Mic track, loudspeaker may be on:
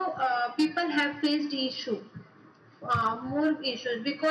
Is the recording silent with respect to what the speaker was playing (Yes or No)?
No